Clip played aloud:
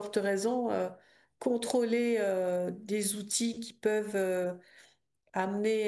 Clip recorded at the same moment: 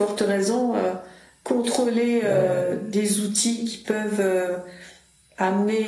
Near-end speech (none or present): present